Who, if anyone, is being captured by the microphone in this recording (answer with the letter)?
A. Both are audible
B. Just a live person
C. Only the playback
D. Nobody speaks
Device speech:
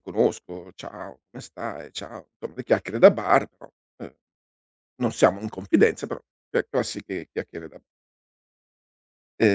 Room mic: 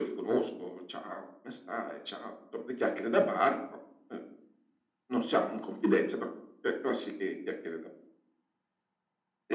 C